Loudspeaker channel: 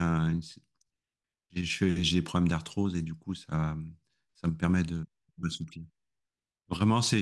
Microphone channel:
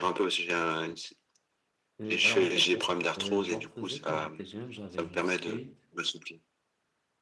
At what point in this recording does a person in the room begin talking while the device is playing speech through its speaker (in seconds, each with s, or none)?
2.0 s